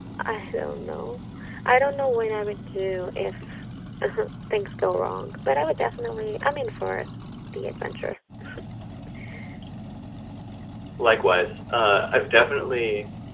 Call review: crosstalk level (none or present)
none